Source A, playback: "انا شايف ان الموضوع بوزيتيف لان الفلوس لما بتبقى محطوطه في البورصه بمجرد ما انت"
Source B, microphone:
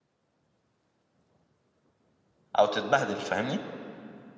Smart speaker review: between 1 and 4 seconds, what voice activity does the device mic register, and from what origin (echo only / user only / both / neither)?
user only